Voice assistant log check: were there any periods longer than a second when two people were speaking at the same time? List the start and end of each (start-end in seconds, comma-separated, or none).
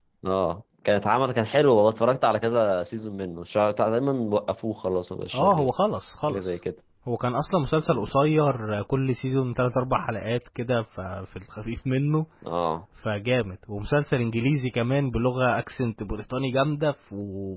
none